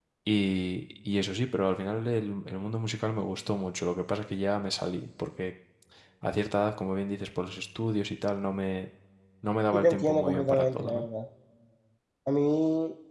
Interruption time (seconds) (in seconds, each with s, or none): 9.7 s